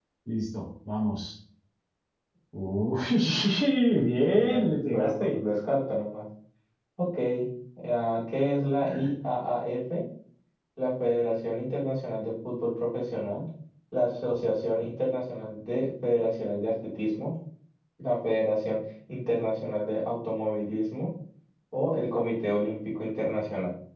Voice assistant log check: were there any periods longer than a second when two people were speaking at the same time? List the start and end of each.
4.0-5.4

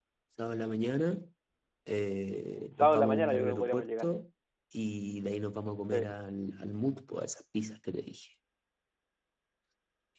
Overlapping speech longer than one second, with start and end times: 2.8-4.1

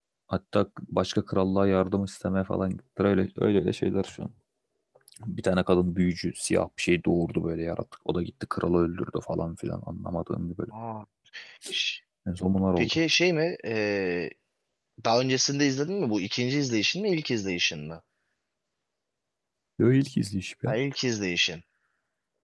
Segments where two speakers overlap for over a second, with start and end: none

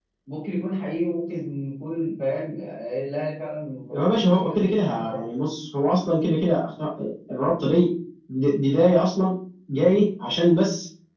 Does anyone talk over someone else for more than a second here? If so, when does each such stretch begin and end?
4.0-5.3

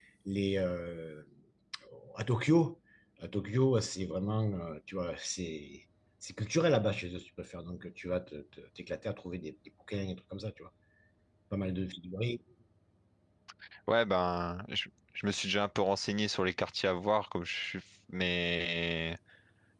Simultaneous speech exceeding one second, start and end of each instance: none

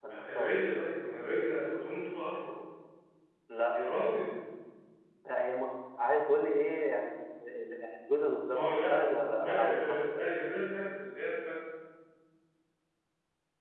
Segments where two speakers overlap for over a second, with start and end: 8.5-10.3

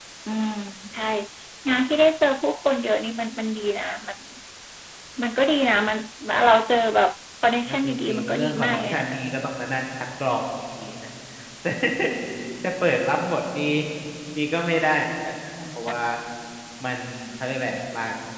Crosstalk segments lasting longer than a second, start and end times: 7.7-9.1

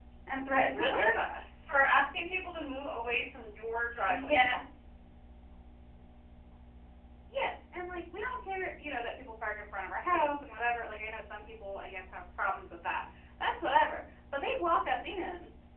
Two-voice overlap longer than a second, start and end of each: none

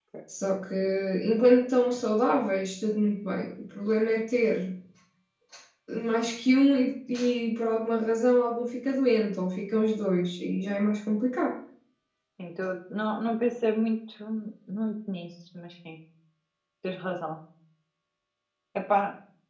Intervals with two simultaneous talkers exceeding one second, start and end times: none

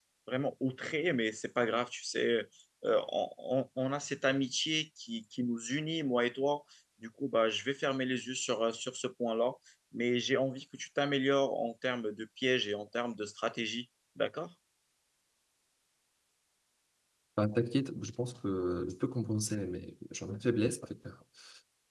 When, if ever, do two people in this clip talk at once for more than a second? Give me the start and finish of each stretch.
none

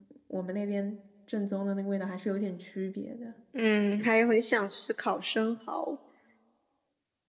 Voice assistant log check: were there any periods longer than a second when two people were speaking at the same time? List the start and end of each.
none

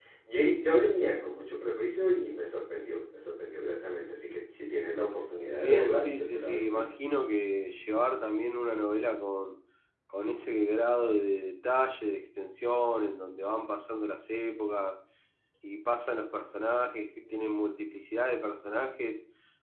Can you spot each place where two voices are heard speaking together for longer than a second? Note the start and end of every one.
5.6-6.9

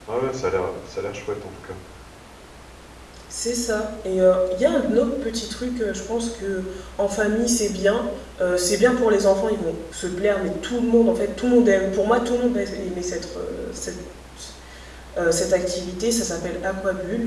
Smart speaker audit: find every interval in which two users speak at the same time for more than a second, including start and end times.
none

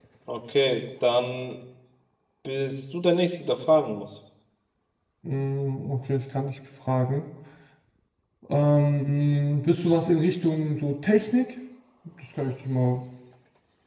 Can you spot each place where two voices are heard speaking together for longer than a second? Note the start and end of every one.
none

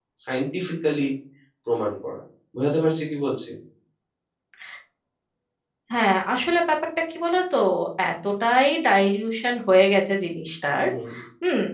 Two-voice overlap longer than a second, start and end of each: none

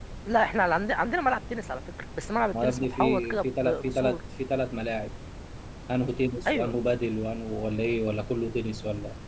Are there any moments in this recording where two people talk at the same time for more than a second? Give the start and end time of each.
2.6-4.2

